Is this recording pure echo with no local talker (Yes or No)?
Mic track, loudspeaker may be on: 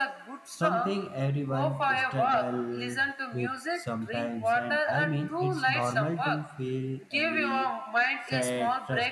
No